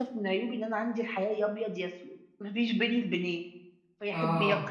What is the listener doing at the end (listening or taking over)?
listening